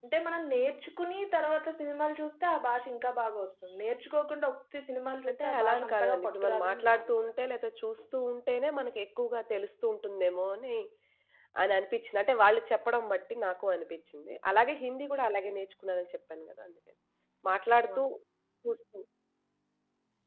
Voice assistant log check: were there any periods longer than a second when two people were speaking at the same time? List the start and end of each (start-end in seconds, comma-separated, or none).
5.3-7.3